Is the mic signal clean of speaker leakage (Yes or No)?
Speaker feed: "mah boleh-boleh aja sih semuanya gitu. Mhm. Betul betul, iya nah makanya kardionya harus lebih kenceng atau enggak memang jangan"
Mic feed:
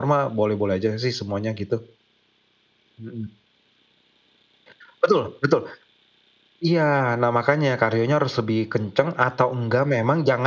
No